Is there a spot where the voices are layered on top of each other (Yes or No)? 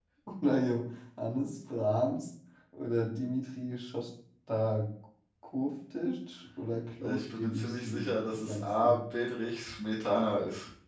Yes